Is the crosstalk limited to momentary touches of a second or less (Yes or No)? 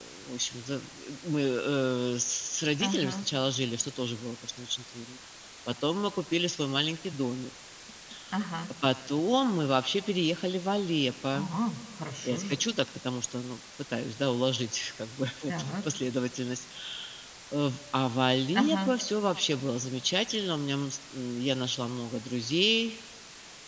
Yes